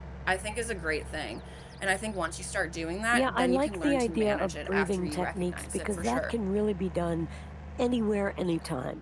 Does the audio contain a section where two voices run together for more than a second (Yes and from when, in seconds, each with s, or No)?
Yes, from 3.1 s